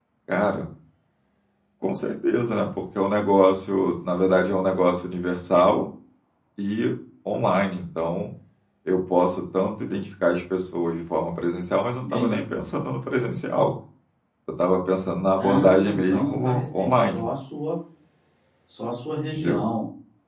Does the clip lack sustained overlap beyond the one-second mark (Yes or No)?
No